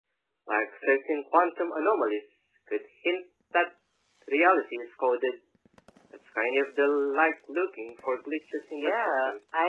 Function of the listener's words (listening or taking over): taking over